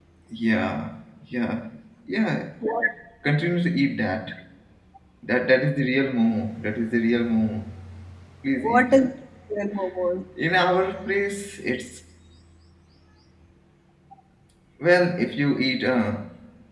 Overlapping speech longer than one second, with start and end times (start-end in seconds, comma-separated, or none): none